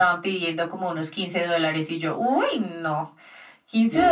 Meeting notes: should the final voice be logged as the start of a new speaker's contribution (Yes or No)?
No